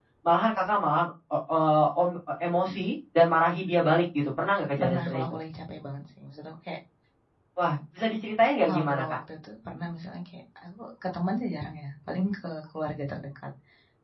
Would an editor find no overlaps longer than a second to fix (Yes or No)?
Yes